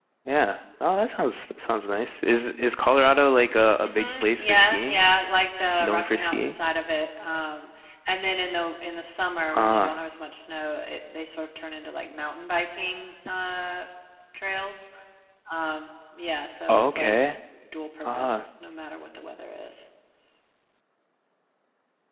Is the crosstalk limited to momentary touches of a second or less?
No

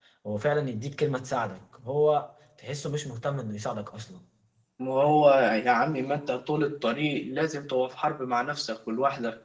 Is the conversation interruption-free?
Yes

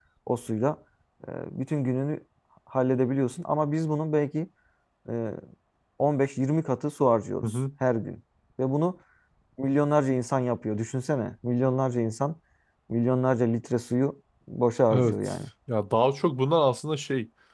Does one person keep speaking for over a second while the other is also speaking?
No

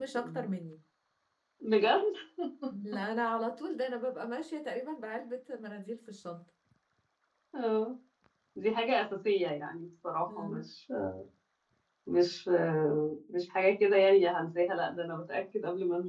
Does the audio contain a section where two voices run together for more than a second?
No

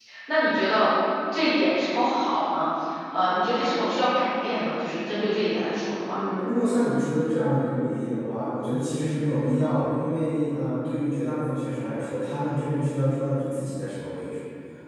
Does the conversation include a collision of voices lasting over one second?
No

